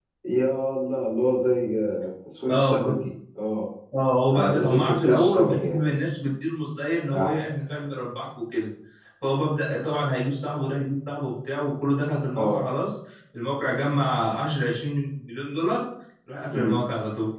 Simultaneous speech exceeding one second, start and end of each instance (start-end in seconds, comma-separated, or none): 4.3-5.8